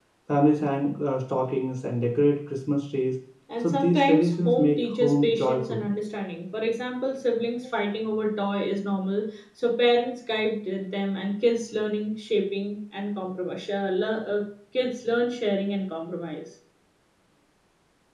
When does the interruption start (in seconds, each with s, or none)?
3.6 s